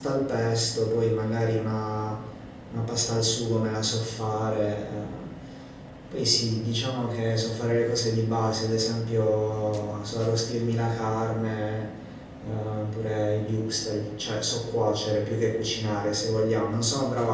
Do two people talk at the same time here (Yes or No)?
No